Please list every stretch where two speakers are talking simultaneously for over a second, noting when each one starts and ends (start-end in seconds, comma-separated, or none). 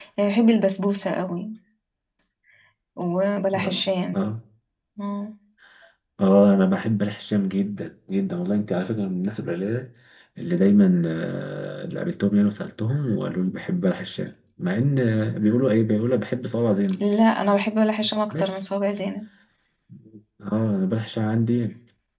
none